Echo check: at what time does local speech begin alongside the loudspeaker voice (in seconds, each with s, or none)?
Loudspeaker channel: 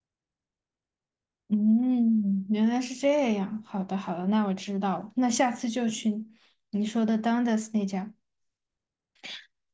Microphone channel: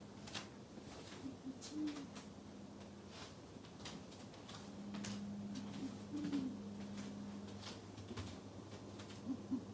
none